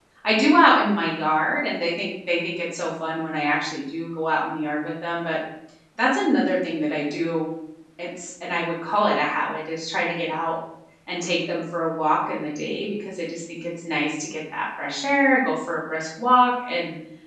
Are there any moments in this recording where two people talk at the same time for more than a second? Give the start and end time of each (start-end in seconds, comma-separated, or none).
none